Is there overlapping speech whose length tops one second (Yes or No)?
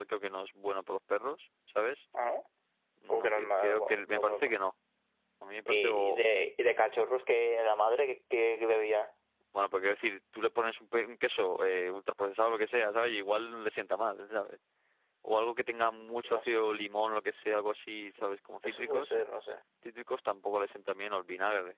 Yes